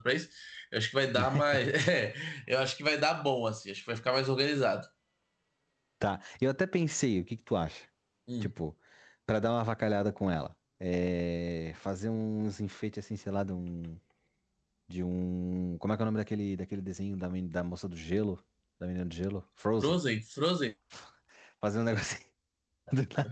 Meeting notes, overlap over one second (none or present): none